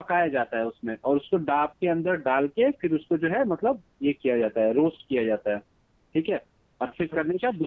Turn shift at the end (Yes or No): No